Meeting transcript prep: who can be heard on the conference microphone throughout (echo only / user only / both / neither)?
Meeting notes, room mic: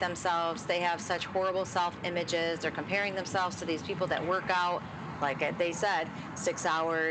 echo only